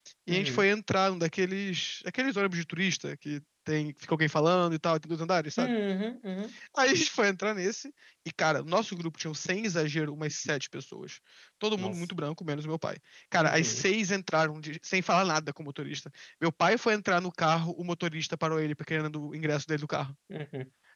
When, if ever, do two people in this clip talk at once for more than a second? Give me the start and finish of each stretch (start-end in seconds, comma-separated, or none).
none